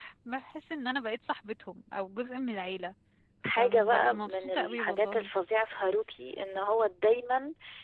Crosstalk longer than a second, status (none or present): present